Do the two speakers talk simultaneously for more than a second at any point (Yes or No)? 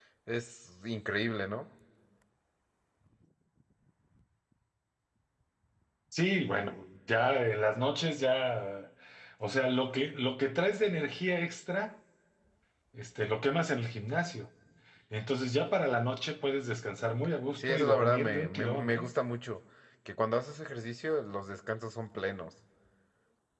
Yes